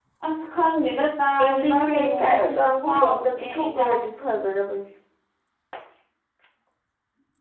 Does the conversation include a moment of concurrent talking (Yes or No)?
Yes